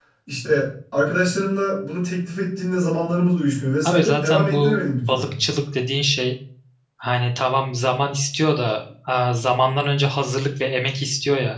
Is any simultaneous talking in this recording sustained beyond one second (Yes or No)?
Yes